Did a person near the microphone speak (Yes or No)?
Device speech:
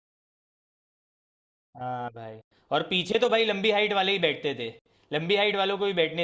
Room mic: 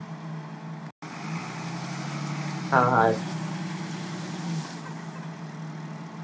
Yes